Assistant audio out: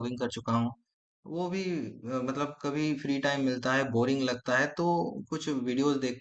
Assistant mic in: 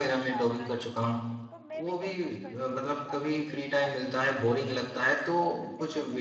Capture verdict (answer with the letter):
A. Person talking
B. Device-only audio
A